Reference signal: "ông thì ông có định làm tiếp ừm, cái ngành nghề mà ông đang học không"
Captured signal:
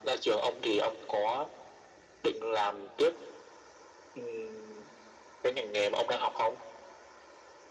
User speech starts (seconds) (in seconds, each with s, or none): none